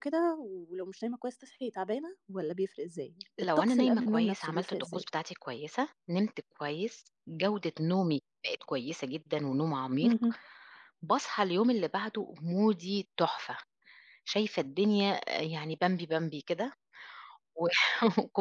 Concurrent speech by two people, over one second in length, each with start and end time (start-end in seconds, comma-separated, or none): 3.6-5.0